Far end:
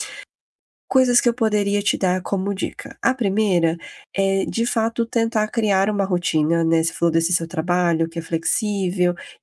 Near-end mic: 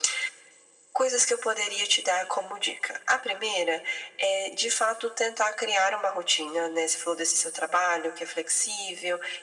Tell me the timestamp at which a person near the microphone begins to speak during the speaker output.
none

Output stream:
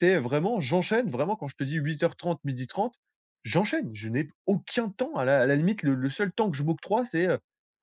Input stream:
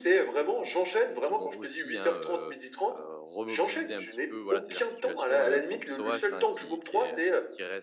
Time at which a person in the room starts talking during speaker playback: 1.2 s

